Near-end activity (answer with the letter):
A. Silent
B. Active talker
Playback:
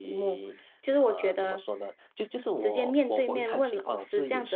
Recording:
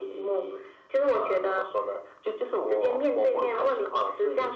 A